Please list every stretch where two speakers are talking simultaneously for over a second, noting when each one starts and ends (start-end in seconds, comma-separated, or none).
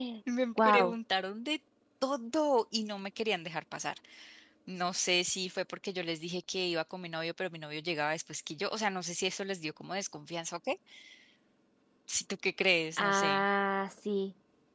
none